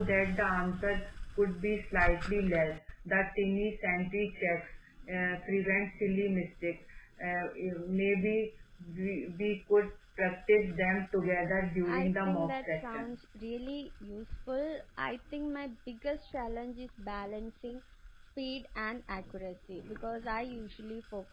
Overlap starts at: 11.8 s

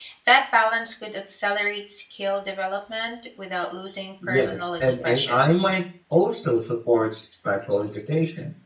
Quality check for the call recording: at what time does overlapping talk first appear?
4.2 s

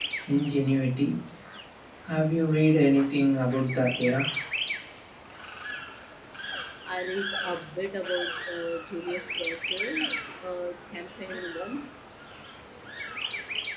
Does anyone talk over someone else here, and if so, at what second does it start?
none

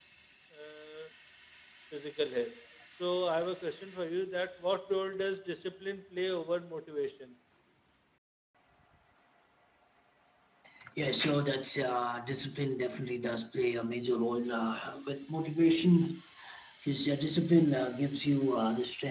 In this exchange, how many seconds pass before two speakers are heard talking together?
none

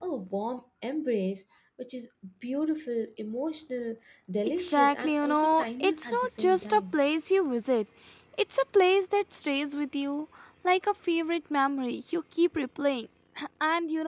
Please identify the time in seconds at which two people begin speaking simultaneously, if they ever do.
4.6 s

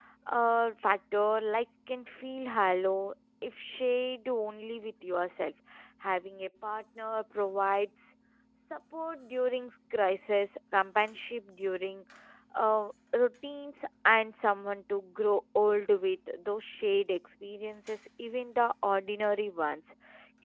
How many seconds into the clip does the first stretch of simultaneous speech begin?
none

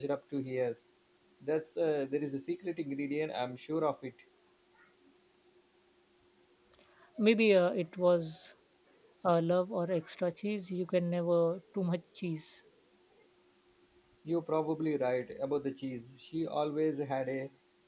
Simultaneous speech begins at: none

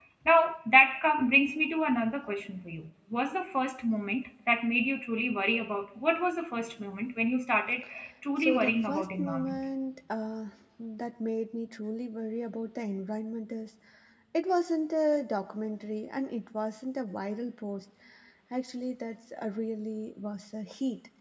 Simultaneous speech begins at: 8.4 s

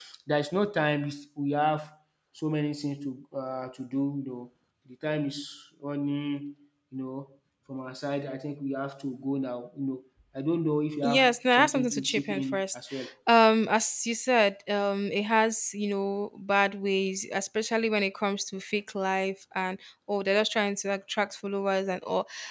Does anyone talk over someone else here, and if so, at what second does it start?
11.0 s

